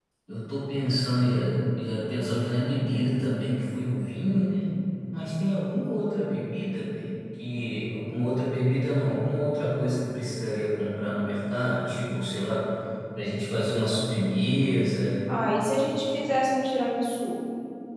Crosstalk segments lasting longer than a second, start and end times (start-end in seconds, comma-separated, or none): none